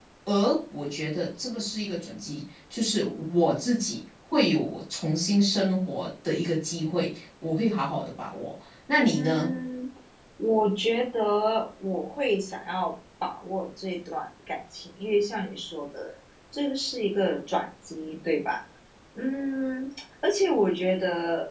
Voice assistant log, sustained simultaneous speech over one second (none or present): none